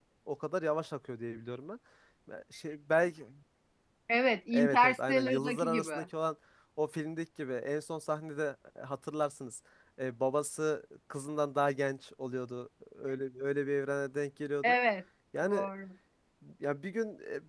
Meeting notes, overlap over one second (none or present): present